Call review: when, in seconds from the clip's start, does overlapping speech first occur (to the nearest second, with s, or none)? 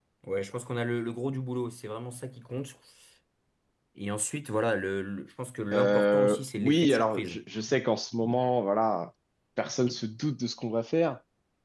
6 s